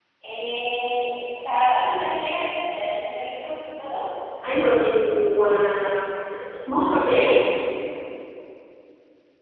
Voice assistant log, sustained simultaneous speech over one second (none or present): none